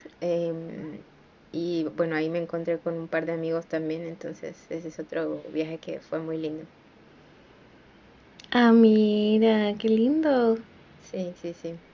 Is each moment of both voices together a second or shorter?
Yes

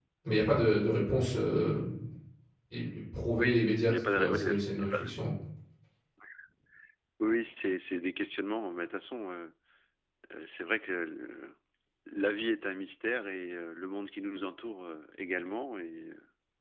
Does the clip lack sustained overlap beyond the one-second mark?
No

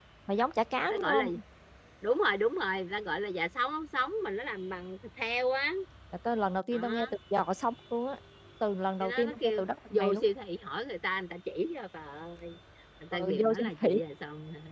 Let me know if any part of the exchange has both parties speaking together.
Yes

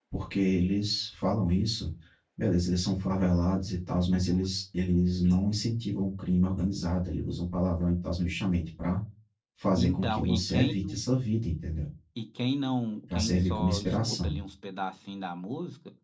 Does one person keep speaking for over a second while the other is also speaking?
Yes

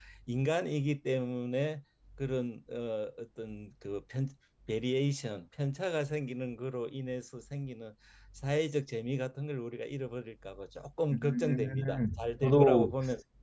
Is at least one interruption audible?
Yes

